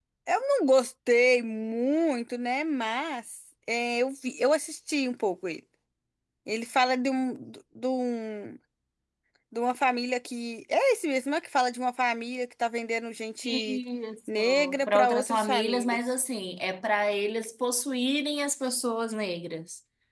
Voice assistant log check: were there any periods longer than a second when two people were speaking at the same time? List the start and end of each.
14.3-16.1

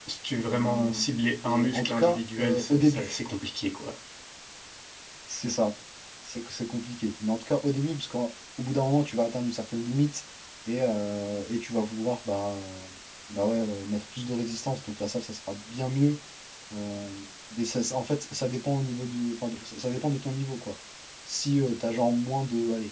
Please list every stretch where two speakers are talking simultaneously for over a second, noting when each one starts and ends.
1.4-3.2

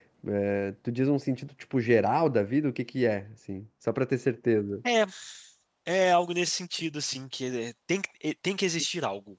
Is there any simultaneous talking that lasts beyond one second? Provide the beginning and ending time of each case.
none

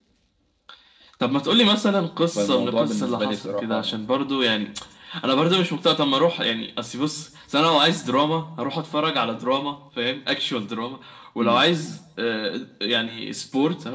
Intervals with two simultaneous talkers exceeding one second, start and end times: 2.4-3.9

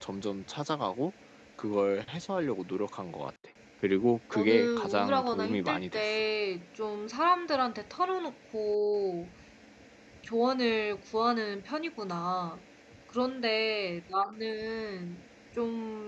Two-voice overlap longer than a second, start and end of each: 4.3-6.1

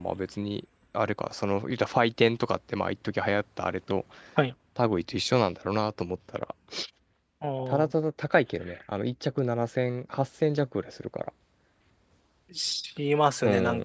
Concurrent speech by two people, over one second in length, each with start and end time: none

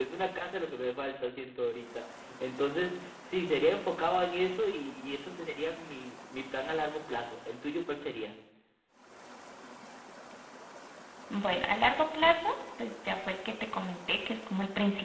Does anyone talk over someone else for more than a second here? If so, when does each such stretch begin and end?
none

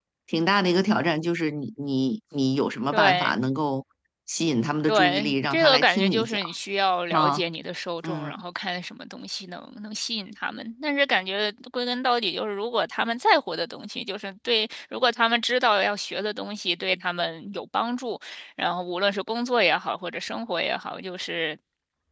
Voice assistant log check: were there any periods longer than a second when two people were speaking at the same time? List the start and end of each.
4.9-6.4

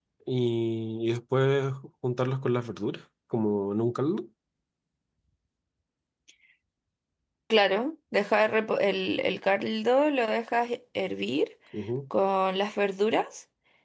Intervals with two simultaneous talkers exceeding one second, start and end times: none

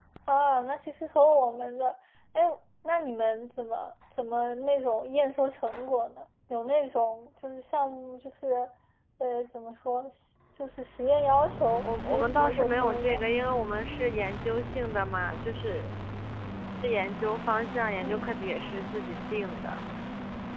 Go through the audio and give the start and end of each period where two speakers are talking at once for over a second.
11.8-13.2

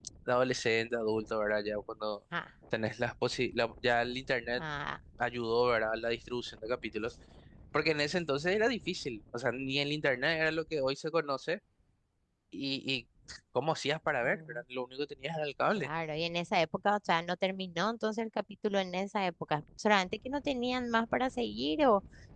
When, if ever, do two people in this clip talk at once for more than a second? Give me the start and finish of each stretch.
none

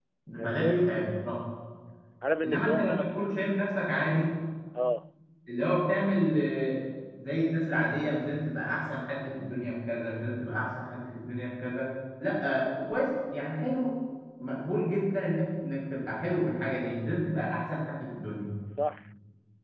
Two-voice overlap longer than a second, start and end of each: 2.4-3.7

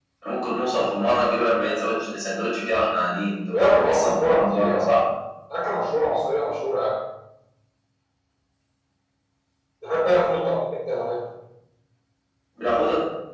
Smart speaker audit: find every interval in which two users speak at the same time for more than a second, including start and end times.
3.5-4.9

